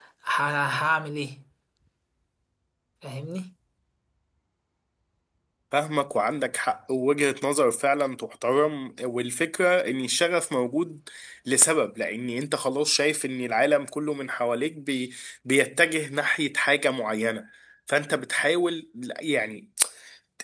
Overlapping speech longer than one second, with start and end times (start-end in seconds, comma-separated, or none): none